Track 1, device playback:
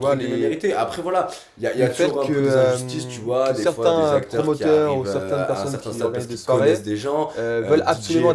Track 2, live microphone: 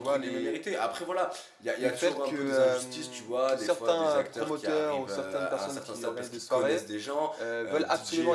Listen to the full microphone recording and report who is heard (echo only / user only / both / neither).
echo only